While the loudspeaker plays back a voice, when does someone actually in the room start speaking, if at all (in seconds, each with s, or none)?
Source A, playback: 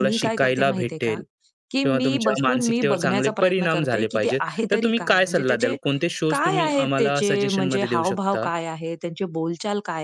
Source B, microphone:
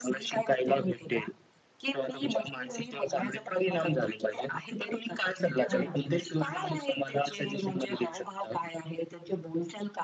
5.7 s